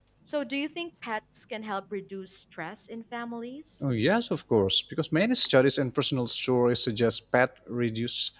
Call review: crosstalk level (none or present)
none